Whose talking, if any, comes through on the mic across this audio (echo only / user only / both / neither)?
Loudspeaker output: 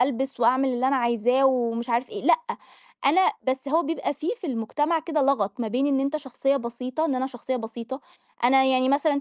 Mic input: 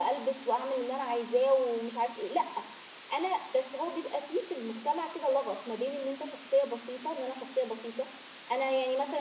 echo only